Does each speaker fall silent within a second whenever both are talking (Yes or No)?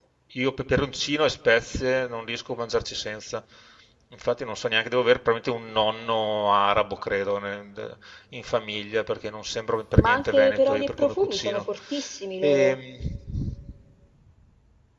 No